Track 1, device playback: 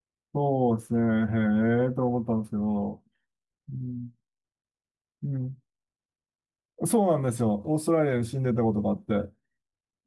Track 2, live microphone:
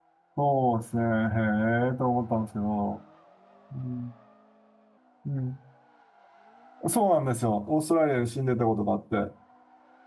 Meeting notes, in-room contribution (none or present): none